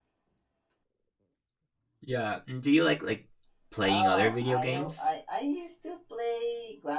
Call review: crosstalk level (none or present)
present